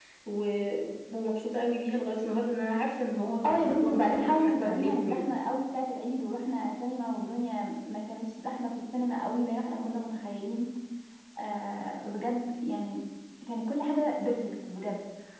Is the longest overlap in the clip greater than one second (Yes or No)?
Yes